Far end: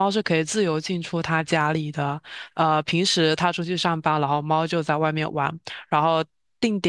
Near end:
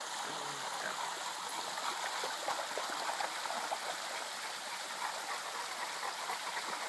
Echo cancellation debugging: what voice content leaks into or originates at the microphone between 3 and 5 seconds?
neither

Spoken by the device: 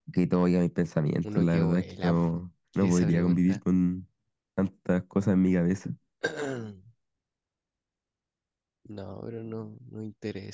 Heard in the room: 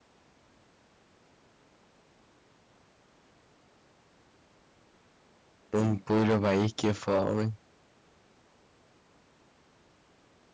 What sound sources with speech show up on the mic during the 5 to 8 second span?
user only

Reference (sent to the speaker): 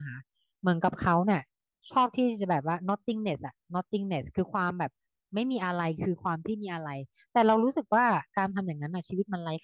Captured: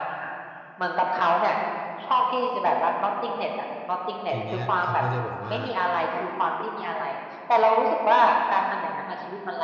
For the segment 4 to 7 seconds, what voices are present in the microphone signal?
both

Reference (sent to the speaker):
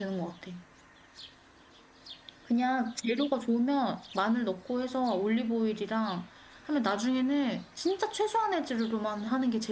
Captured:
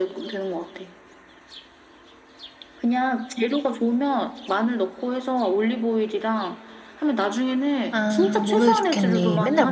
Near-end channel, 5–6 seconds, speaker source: echo only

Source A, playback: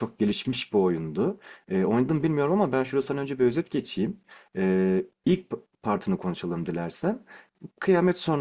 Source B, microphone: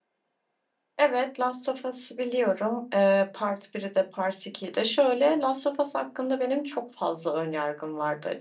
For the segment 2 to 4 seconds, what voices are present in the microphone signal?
user only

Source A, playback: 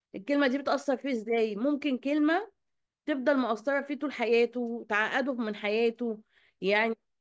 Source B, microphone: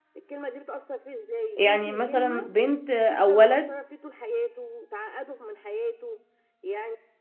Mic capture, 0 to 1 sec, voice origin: echo only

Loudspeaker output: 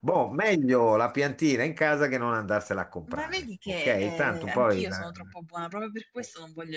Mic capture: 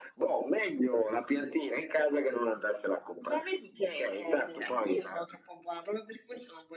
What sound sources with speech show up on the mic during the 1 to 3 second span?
echo only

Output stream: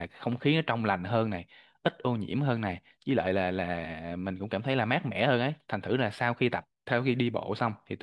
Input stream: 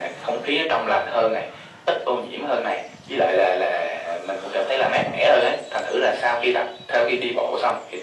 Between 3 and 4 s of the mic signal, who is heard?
echo only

